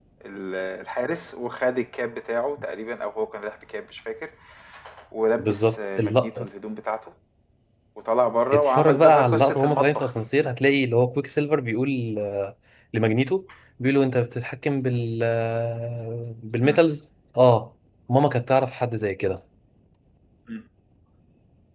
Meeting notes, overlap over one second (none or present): present